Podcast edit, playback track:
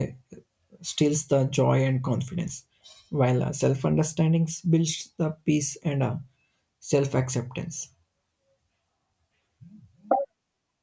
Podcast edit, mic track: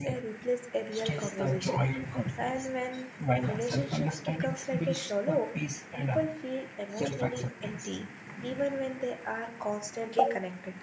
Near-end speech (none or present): present